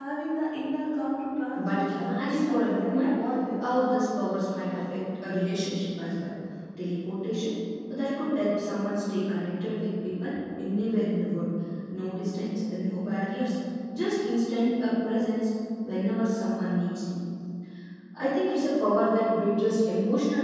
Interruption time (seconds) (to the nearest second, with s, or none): 2 s